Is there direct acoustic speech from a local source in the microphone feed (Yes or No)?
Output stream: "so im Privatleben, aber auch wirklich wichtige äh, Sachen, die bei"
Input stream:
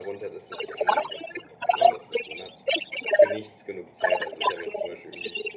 Yes